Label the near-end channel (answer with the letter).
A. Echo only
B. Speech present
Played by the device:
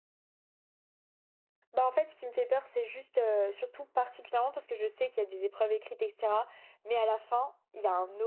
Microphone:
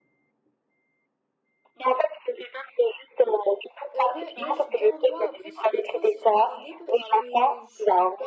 B